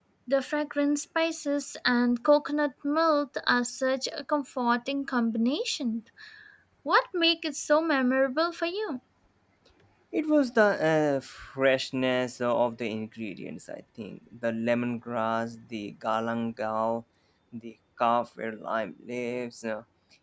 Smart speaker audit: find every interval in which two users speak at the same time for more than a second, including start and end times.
none

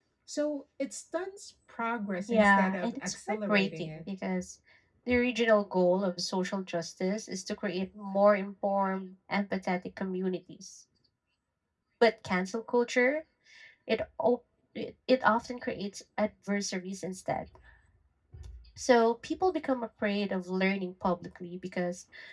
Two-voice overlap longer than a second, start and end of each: 2.3-4.0

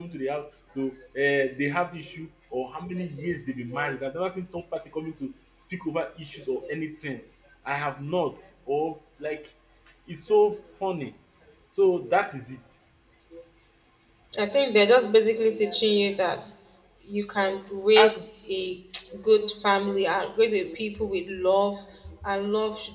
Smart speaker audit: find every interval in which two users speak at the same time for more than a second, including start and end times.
none

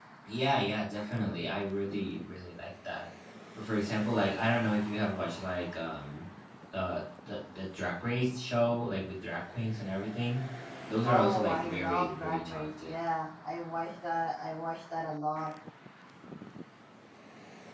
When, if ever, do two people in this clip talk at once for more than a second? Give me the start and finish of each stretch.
11.0-12.9

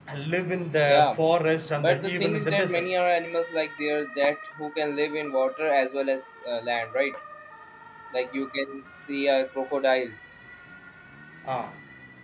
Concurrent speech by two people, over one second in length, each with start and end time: 1.8-3.0

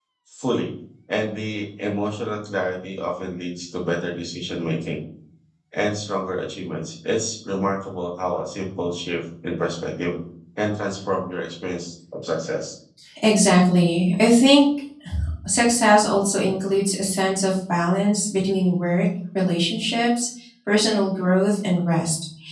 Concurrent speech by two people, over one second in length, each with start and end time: none

